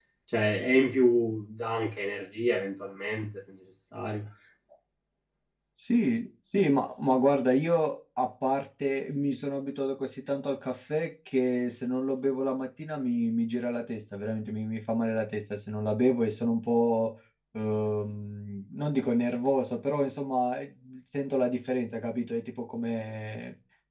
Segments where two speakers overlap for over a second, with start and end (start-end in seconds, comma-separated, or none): none